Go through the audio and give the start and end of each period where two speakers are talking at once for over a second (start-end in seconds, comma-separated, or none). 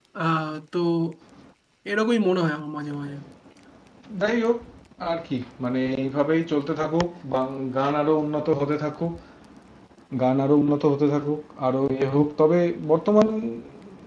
none